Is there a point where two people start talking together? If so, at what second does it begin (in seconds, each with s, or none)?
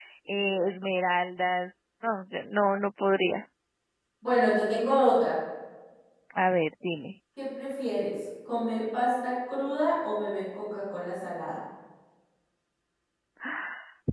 none